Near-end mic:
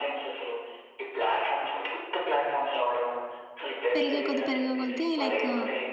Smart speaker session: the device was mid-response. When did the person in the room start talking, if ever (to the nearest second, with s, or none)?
4 s